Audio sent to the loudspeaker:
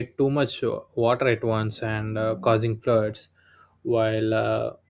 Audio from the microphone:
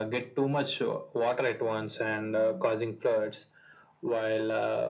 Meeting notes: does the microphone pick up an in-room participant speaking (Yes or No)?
No